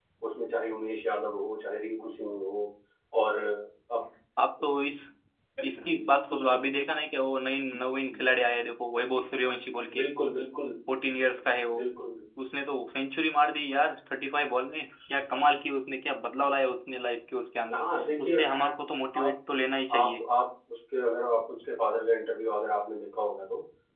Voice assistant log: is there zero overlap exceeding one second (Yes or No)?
Yes